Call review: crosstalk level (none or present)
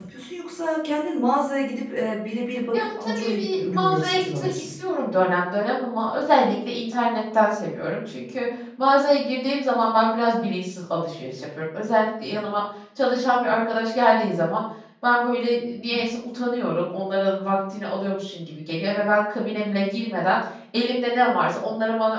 present